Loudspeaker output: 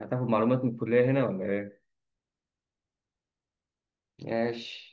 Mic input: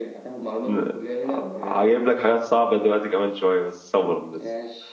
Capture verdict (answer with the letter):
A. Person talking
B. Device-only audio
A